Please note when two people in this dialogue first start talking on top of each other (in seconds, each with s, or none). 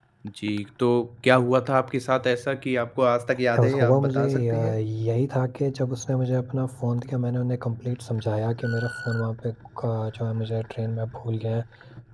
3.5 s